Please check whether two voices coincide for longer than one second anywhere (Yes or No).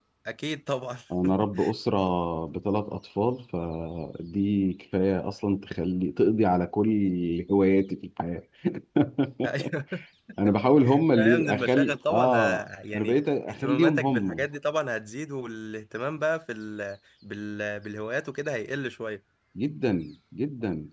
Yes